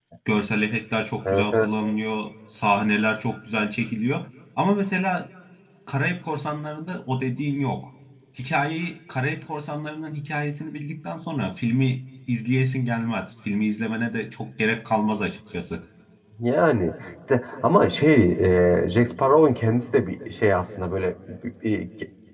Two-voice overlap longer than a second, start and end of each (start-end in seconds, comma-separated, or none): none